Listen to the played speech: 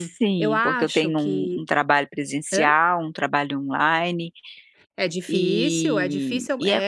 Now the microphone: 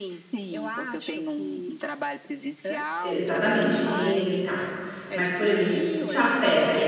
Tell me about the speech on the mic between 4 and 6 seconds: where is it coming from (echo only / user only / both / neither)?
both